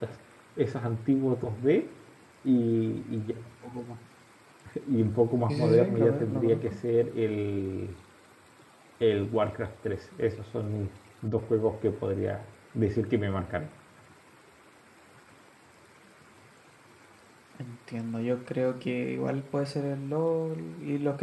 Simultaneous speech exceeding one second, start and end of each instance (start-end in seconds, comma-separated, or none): 5.5-6.7